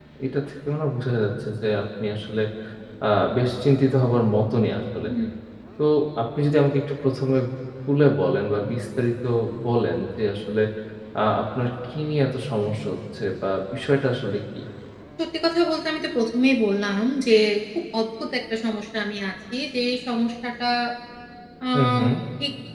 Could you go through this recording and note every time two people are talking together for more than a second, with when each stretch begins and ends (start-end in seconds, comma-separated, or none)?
none